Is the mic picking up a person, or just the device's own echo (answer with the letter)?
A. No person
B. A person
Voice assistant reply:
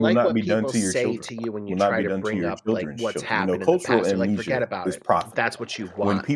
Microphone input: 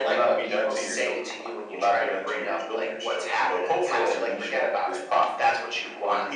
A